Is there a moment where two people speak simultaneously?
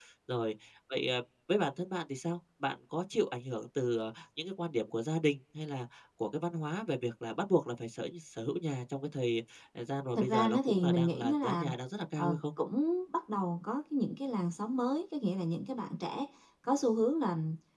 Yes, from 10.1 s

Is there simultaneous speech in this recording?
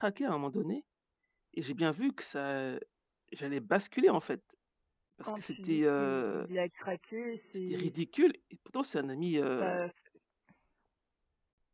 Yes, from 5.2 s

